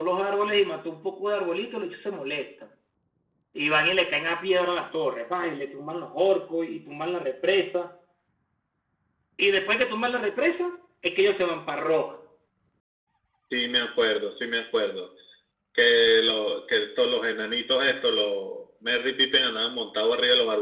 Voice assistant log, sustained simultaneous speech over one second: none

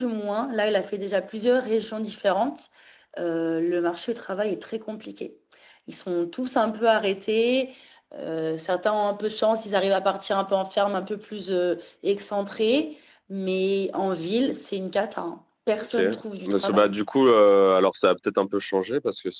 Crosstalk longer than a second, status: none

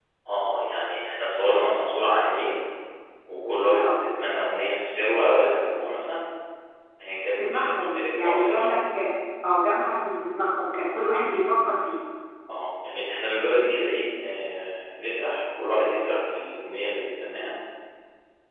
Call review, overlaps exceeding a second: present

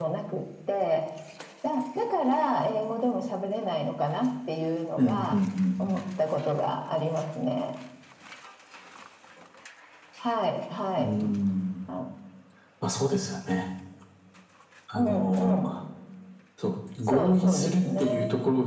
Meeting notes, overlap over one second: present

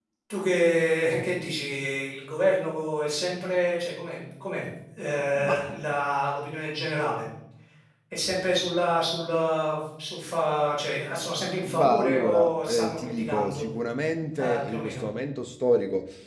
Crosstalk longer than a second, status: present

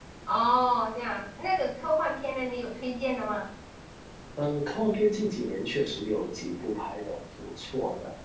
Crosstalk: none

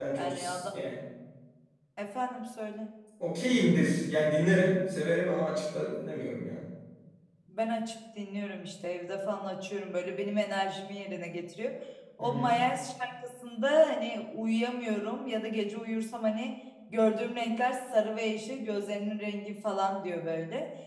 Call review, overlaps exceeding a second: none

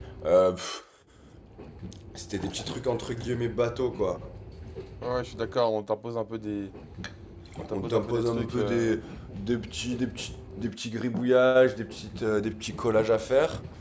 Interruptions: present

